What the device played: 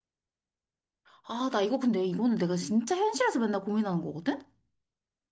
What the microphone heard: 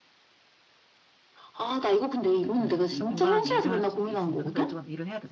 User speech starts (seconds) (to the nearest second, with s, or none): 3 s